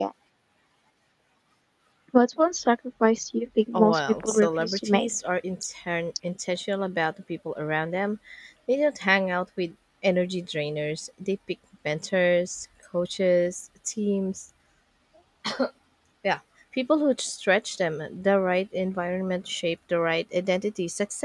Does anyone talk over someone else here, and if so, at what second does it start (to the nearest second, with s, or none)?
4 s